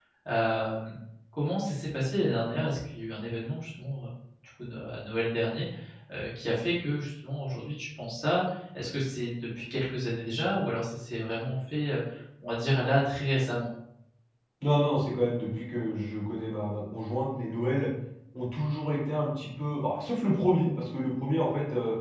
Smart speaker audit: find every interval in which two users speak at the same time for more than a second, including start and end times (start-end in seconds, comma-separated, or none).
none